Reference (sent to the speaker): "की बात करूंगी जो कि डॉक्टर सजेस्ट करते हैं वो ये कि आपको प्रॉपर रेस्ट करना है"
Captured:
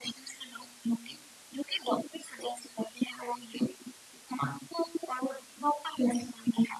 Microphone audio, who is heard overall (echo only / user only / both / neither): echo only